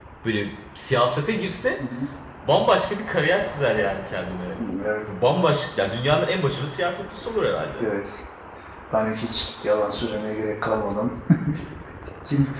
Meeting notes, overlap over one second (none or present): none